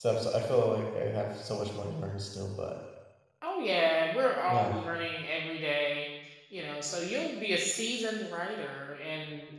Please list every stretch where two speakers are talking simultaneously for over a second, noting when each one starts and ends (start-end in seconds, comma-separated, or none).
none